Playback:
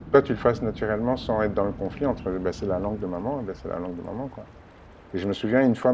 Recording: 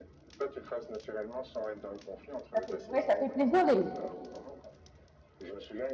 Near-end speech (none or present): present